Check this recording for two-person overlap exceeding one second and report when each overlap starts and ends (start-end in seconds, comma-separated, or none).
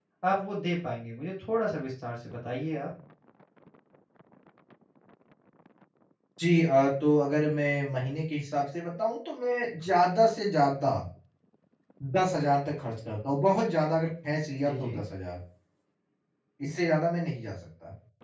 none